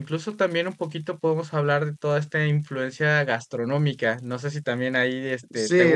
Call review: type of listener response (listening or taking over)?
taking over